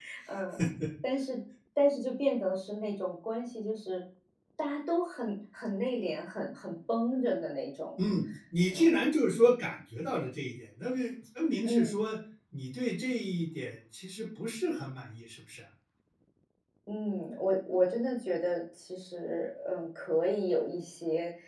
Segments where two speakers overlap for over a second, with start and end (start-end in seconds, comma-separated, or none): none